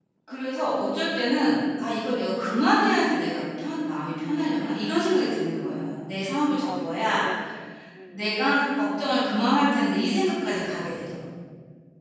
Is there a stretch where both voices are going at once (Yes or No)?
Yes